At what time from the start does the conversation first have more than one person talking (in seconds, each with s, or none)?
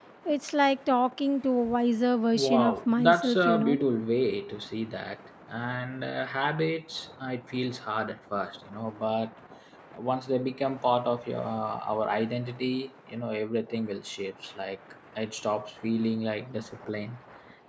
2.3 s